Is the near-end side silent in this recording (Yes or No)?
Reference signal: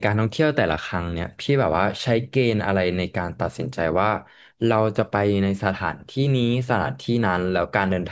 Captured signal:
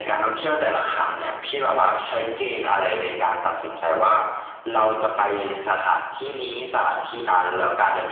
Yes